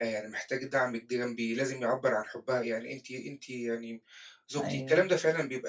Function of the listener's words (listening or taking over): listening